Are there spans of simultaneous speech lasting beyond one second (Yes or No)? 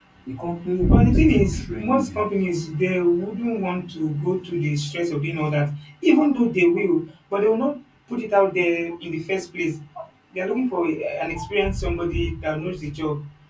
Yes